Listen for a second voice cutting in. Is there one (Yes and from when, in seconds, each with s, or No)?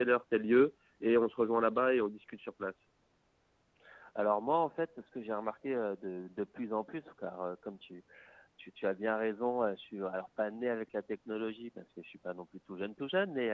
No